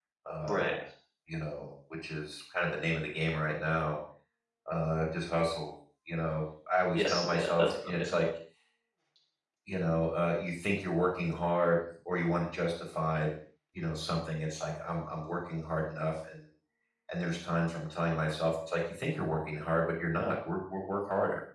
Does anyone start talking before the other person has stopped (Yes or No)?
Yes